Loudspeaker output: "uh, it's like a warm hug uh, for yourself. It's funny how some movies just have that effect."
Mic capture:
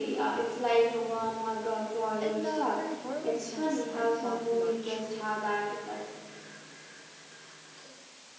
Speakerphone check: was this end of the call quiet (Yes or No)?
No